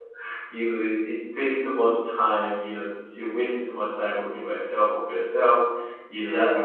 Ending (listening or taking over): listening